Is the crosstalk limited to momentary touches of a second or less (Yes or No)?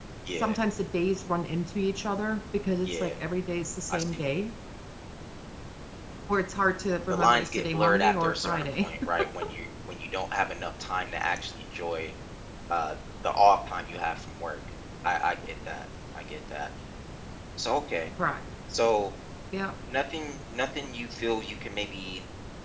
No